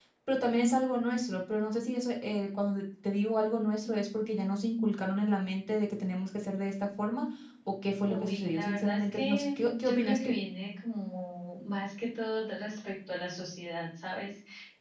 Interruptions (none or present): present